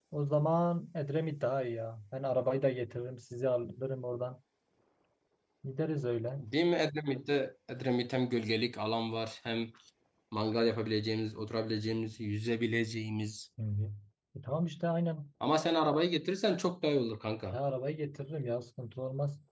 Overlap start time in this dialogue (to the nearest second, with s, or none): none